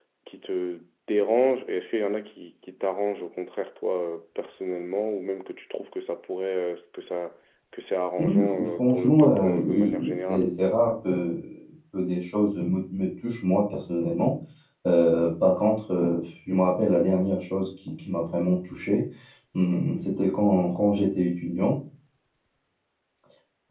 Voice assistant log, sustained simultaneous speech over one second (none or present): present